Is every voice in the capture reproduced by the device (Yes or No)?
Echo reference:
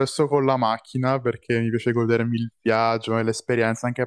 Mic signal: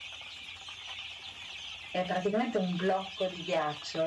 No